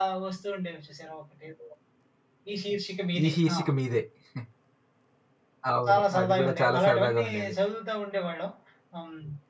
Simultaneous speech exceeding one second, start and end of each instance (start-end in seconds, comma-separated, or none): 5.9-7.5